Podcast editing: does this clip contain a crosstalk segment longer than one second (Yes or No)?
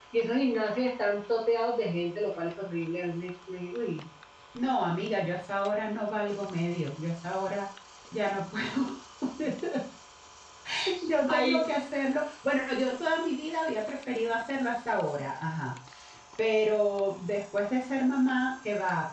No